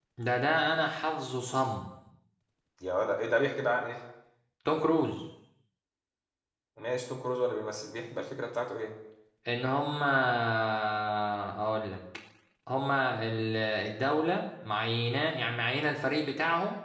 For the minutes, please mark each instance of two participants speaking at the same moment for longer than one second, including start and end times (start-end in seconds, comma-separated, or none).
none